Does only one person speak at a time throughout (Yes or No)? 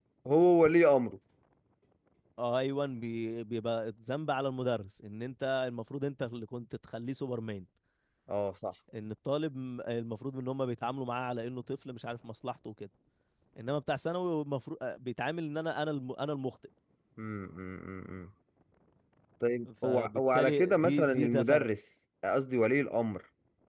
No